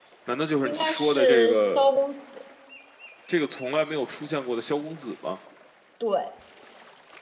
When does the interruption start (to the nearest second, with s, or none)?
1 s